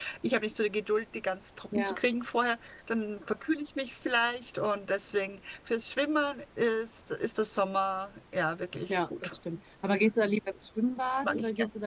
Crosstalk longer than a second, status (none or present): none